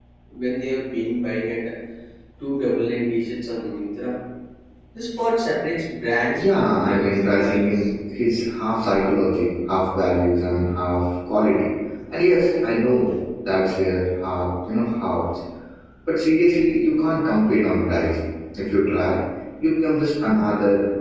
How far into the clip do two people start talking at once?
6 s

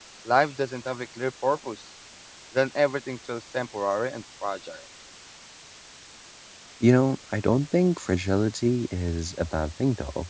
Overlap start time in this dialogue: none

